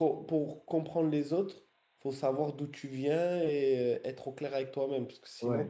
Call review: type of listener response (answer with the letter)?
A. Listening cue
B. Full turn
B